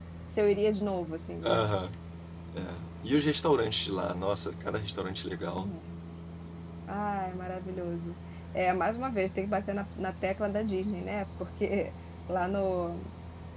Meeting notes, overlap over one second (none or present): none